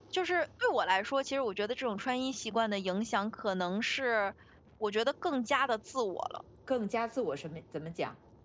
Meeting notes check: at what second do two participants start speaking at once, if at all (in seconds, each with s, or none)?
none